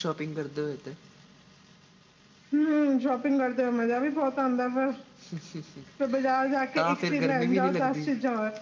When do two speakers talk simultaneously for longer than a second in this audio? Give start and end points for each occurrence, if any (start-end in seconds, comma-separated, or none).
6.8-8.1